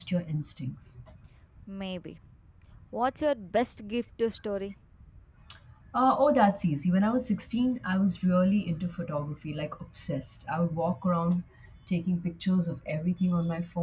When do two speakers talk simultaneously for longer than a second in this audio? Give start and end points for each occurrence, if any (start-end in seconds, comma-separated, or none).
none